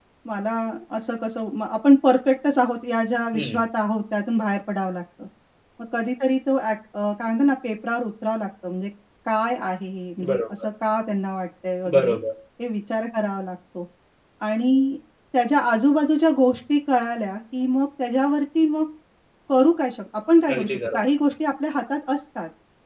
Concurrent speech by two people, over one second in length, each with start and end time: none

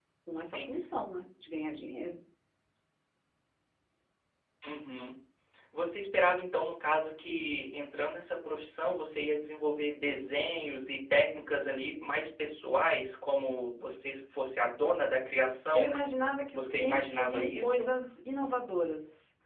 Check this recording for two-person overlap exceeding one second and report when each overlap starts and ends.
16.5-17.9

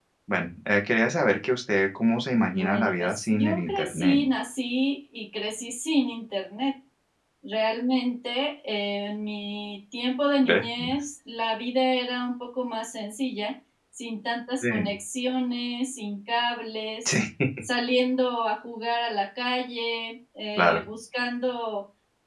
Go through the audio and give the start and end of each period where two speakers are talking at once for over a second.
2.5-4.2

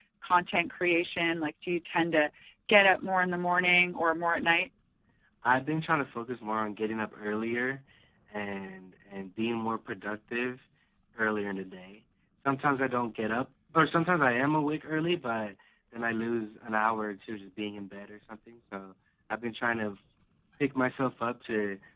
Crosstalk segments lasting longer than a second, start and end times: none

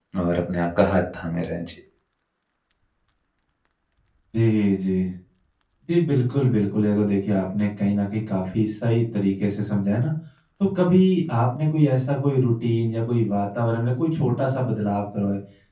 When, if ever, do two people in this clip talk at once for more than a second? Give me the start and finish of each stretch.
none

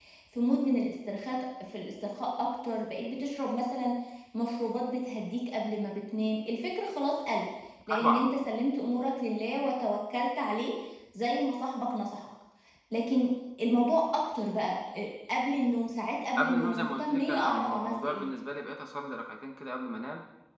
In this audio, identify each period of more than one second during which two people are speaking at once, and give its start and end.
16.4-18.3

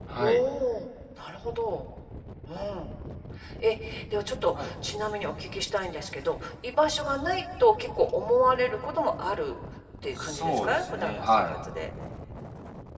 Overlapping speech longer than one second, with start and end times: 10.2-11.6

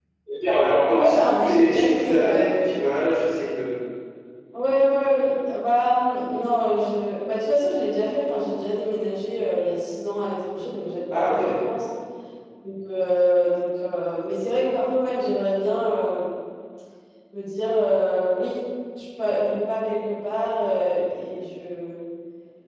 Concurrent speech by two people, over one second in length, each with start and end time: 0.8-2.4

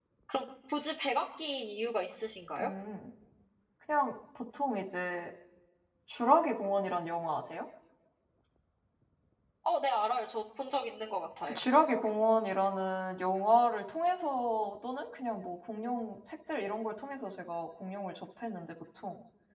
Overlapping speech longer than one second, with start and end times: none

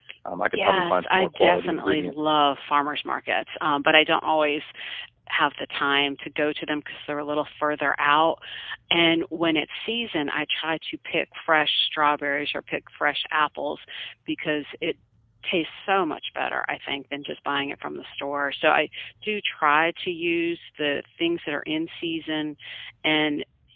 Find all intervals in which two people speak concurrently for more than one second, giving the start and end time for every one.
0.5-2.3

